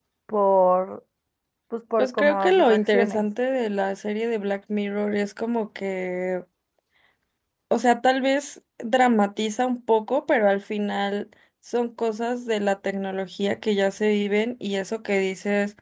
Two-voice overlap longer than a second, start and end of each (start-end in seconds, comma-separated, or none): 2.0-3.2